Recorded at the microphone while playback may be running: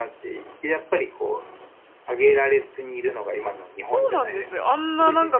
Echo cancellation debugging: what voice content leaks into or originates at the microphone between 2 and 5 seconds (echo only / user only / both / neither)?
both